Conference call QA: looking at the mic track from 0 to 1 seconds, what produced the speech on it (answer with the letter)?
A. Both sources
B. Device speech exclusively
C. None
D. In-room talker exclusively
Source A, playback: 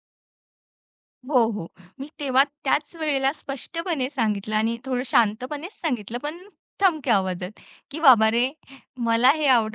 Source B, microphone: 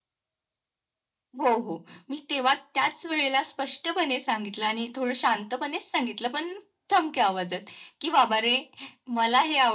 C